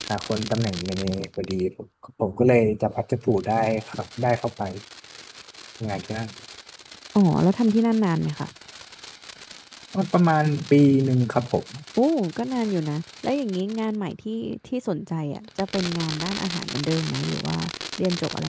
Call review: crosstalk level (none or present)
none